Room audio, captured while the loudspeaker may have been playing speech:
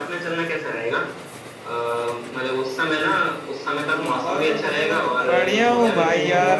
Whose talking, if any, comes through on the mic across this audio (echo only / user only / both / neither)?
both